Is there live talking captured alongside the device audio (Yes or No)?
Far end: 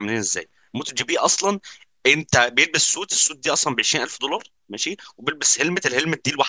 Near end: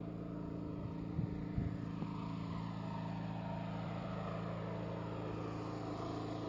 No